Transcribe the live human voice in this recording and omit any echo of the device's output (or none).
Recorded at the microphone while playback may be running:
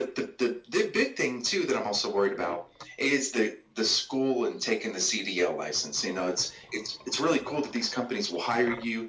none